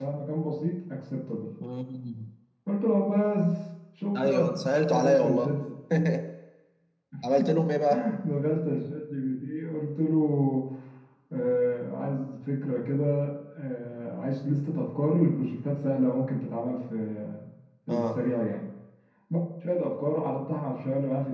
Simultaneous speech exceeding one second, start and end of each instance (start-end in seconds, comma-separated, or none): 4.2-5.5